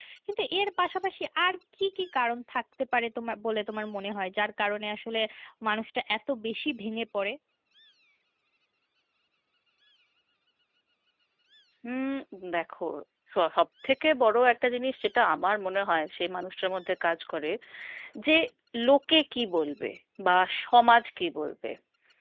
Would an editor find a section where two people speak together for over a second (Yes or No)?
No